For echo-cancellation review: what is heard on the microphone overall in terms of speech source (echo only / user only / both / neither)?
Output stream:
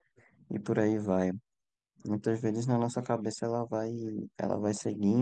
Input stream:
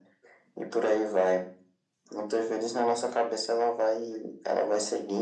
echo only